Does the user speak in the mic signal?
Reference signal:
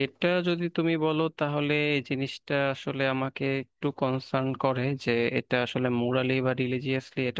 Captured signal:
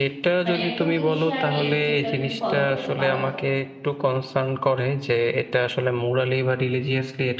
Yes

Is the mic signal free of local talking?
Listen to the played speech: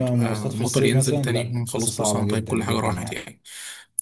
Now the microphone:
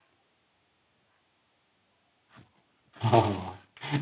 No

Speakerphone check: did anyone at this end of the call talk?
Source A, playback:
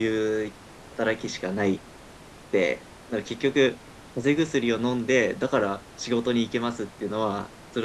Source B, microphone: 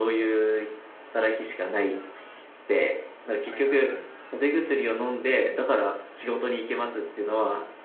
Yes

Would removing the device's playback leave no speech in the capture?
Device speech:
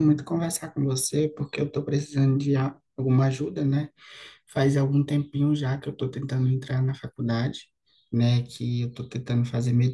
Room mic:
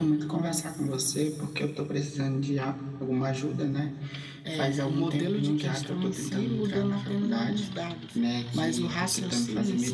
No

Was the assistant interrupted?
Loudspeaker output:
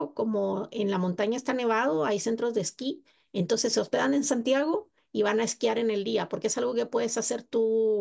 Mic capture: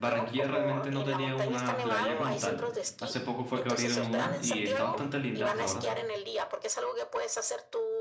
Yes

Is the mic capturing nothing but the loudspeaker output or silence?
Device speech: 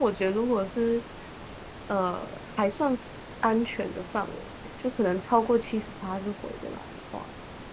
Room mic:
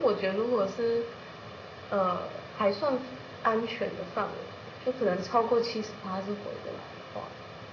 Yes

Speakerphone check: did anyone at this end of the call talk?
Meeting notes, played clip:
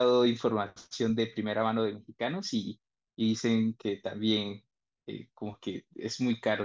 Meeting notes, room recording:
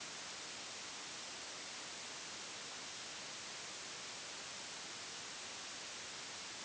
No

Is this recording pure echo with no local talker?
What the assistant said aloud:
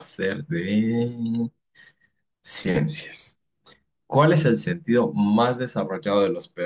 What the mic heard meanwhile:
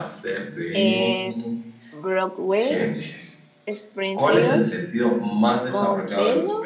No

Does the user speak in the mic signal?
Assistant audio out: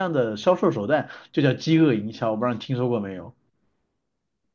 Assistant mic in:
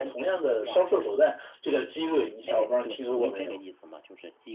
Yes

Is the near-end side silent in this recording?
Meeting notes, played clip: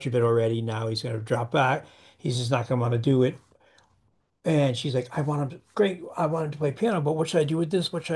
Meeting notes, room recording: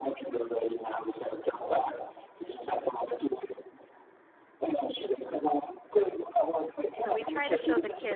No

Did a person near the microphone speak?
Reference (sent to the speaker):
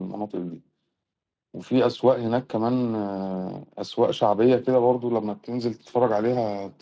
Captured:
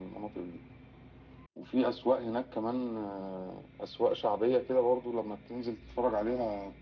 No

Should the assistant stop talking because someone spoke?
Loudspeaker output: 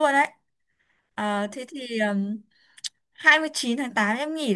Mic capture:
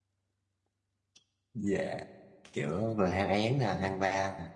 Yes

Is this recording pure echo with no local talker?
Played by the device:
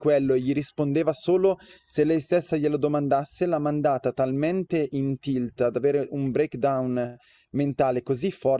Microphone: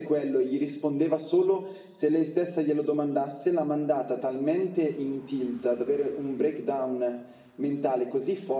Yes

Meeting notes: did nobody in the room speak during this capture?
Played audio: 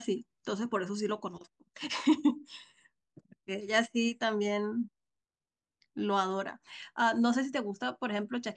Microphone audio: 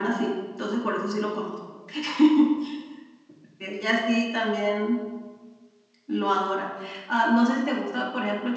Yes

